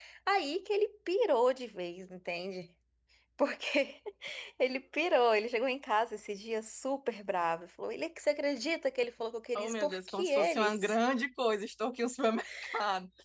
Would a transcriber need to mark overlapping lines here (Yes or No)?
Yes